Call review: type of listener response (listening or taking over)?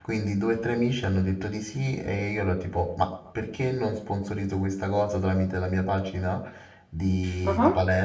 listening